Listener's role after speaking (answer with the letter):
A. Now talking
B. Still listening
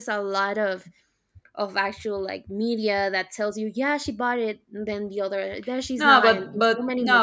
A